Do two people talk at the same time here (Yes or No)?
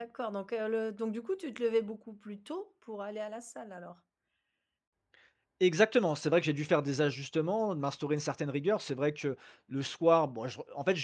No